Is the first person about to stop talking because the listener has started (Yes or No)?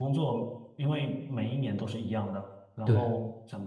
No